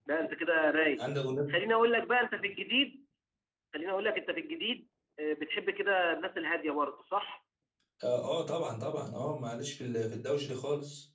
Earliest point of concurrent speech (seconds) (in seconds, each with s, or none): none